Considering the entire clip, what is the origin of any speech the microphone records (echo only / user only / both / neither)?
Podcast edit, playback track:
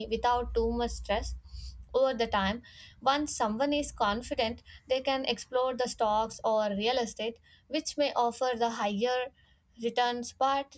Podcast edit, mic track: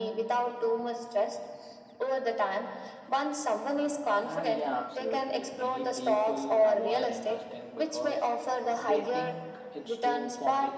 both